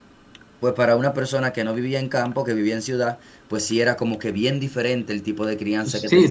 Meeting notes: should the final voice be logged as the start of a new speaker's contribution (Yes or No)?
Yes